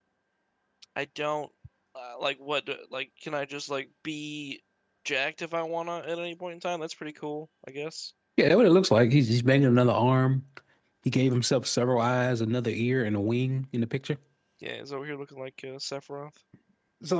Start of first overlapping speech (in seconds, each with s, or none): none